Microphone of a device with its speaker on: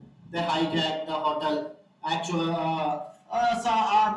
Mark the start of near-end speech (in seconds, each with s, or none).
none